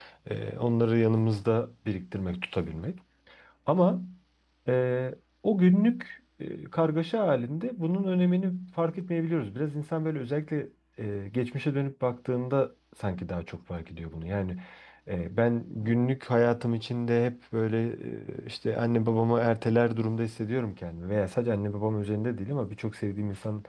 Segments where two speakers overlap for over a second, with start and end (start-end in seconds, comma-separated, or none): none